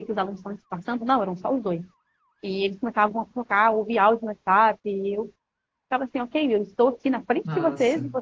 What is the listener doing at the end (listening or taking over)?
listening